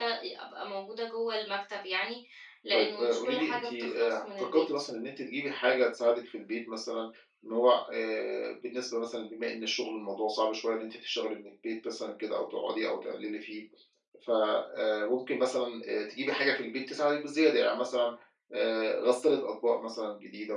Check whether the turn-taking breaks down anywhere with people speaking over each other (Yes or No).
Yes